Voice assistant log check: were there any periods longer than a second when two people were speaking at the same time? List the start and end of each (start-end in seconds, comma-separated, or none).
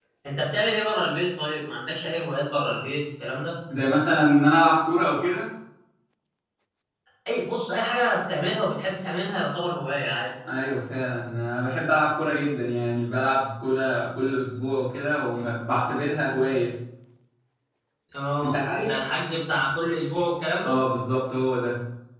none